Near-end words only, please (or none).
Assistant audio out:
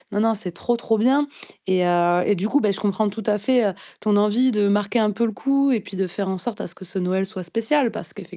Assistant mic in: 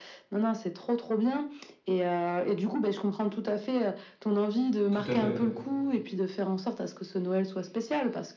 Tout à fait.